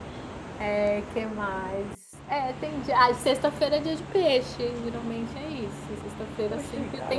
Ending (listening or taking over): taking over